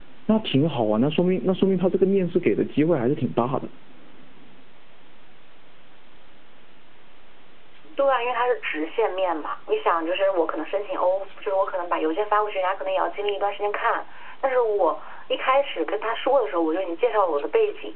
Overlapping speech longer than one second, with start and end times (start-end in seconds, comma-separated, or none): none